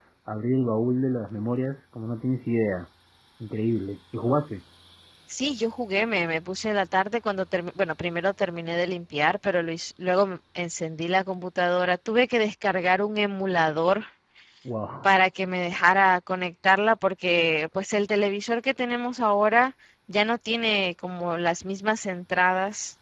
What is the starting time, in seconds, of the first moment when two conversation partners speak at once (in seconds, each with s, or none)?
none